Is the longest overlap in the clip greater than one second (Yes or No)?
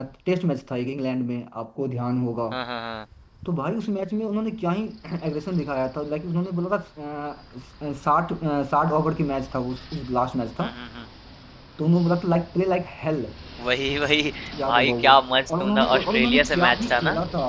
Yes